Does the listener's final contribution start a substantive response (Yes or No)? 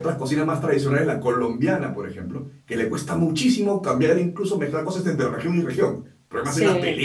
Yes